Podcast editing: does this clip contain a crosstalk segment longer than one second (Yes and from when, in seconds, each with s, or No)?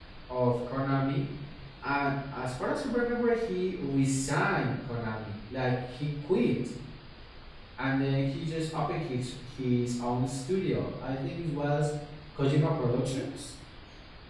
No